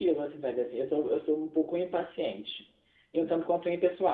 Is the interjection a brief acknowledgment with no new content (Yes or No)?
Yes